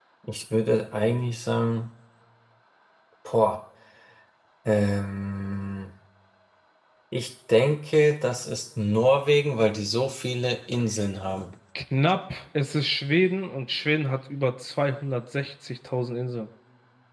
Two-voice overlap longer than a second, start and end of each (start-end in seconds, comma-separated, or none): none